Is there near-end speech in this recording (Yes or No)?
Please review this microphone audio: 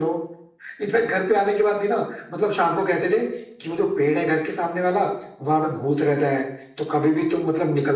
No